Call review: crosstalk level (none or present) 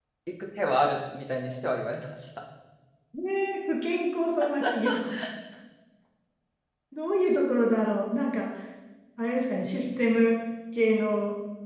none